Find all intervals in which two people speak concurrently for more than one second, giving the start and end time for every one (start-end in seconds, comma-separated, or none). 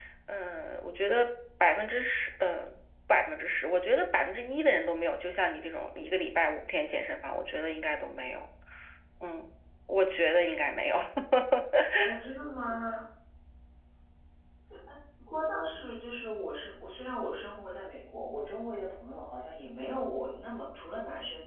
none